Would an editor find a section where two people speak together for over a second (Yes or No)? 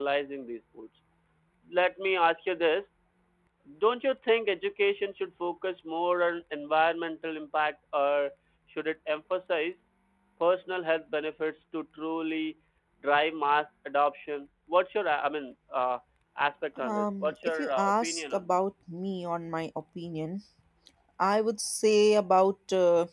Yes